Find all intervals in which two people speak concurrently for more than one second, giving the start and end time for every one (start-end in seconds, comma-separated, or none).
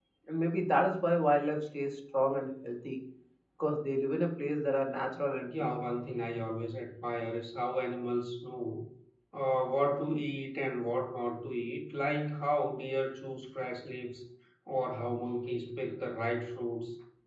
none